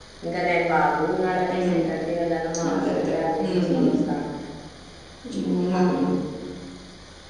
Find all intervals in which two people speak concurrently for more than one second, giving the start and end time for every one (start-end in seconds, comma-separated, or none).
2.7-4.0